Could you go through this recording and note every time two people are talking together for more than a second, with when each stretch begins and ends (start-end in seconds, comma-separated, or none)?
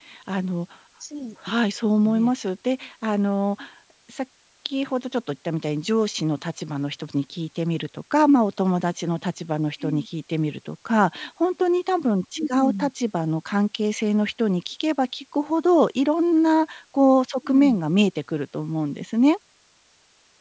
none